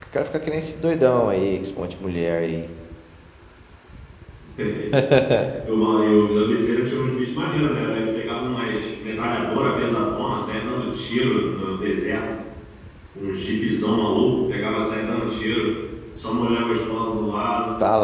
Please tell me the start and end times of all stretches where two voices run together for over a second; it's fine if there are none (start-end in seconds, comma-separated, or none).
none